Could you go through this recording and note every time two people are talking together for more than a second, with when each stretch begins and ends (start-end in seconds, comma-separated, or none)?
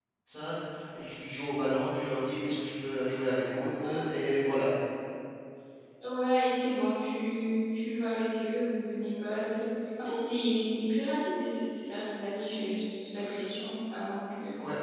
none